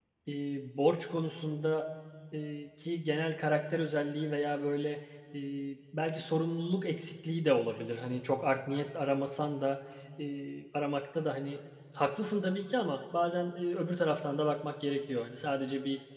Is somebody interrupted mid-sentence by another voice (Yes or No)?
No